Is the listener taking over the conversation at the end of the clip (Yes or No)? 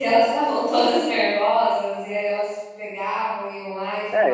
Yes